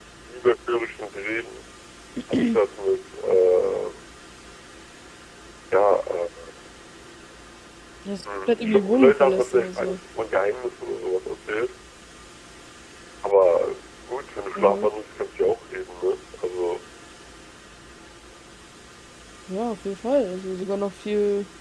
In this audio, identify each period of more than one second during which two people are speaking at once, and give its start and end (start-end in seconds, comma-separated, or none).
8.5-10.0